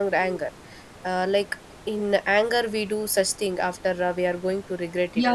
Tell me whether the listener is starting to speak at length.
Yes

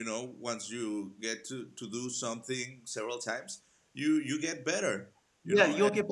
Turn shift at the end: Yes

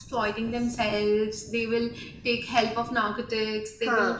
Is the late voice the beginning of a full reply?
No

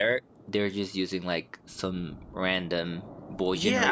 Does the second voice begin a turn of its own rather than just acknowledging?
Yes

